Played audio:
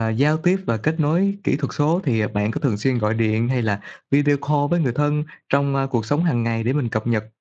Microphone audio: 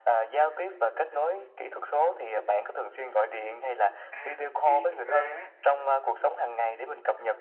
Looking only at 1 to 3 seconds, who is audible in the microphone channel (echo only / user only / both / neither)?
echo only